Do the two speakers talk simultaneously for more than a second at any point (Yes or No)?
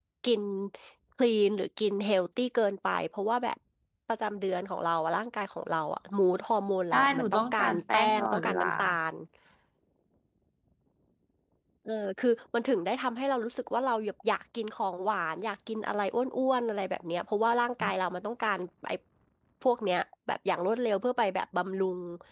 Yes